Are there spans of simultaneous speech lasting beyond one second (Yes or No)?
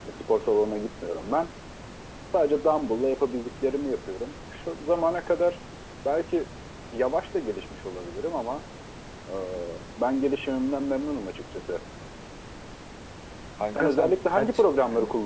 Yes